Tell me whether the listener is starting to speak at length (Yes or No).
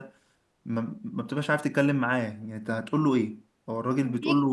No